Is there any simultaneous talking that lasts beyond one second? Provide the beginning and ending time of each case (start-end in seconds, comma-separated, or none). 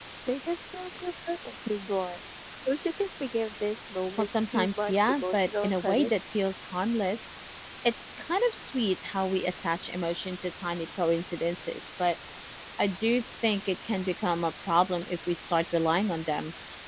4.2-6.1